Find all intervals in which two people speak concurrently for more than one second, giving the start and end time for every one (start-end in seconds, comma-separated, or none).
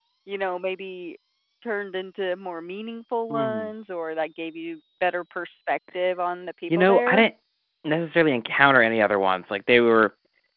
none